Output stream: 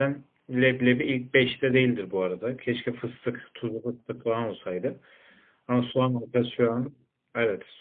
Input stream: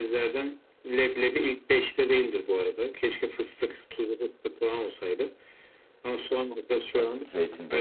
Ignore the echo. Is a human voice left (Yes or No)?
Yes